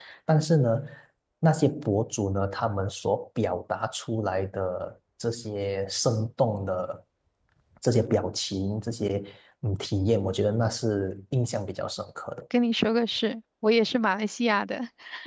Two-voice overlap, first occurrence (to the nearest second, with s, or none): none